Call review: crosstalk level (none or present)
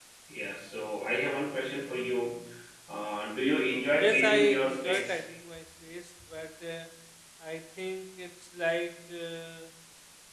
present